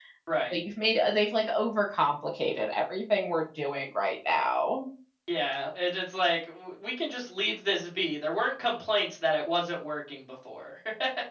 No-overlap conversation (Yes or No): Yes